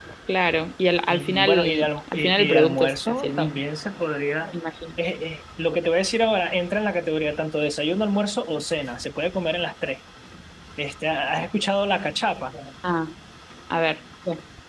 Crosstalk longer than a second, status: present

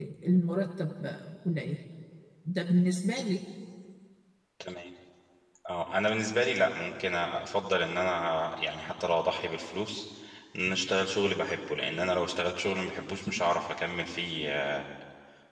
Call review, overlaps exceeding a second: none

